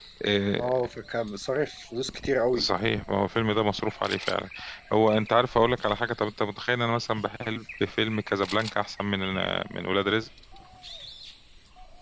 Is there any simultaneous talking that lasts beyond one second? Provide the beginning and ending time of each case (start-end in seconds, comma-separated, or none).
none